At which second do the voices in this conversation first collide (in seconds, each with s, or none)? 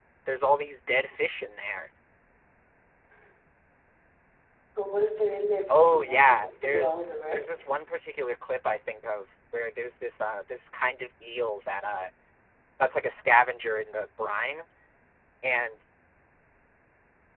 5.7 s